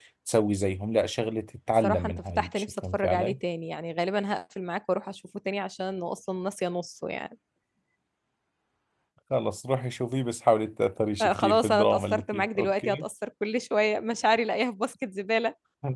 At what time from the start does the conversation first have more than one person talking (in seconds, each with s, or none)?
1.8 s